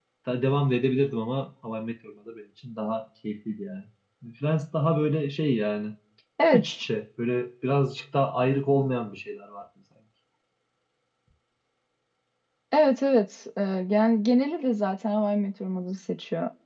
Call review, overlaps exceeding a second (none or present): none